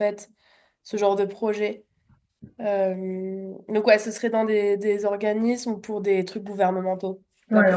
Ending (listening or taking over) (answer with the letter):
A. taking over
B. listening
A